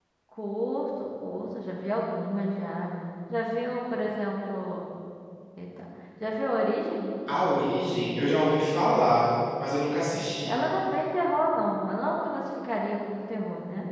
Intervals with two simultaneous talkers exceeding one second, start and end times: none

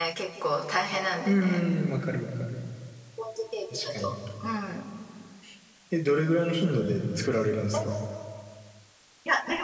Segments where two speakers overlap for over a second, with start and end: none

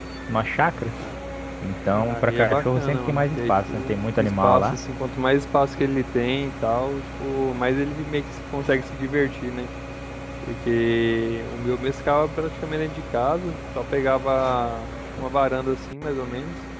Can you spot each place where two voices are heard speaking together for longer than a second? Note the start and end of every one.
1.9-4.8

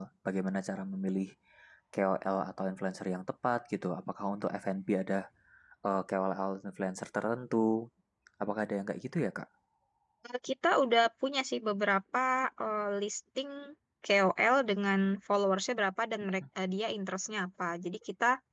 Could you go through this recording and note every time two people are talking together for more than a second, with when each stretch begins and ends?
none

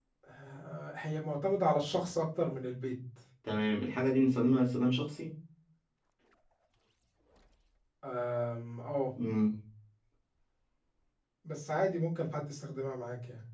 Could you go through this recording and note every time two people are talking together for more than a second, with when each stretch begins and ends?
none

